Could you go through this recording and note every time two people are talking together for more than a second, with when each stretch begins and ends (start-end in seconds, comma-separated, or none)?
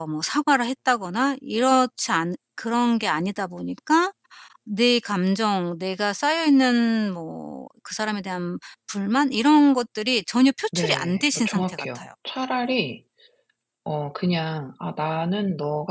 10.8-12.1